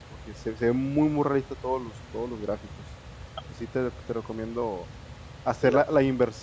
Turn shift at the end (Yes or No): No